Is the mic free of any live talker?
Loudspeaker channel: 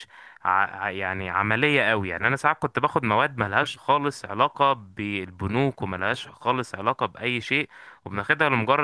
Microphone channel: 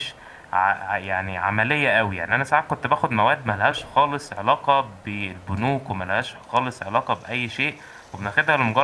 Yes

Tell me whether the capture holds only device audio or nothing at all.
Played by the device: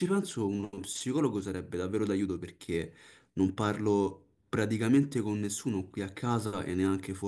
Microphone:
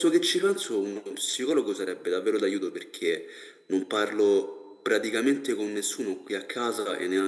Yes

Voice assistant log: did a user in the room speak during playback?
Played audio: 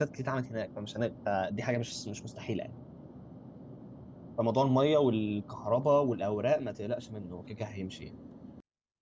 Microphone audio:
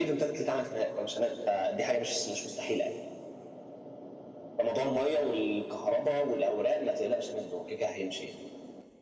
No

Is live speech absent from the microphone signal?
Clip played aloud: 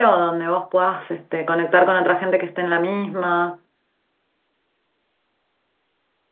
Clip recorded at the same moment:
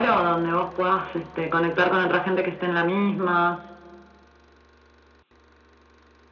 Yes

